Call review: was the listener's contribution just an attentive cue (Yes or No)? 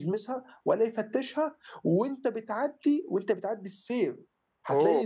Yes